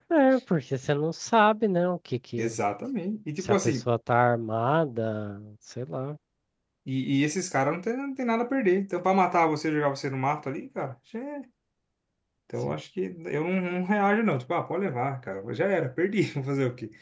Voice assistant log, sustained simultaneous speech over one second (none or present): none